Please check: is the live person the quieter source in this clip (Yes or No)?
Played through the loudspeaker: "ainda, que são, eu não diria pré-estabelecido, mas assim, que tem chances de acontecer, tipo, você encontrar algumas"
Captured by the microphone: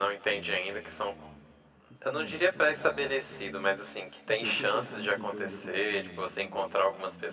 Yes